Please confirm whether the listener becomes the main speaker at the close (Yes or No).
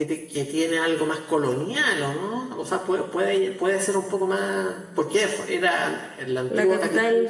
Yes